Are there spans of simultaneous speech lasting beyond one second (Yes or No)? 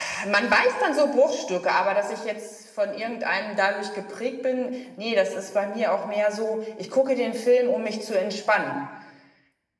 No